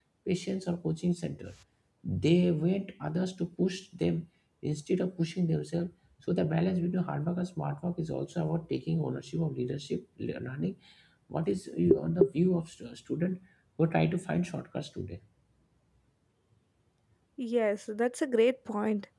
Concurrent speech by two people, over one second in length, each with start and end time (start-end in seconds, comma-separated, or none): none